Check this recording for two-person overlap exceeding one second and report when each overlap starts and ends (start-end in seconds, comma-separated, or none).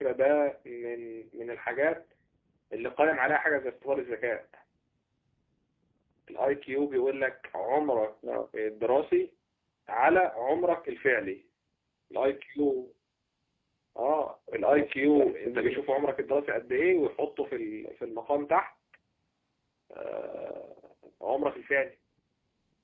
14.6-15.8